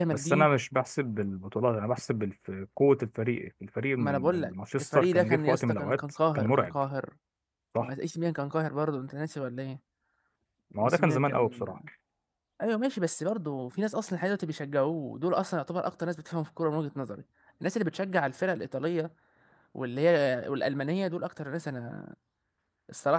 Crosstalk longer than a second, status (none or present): present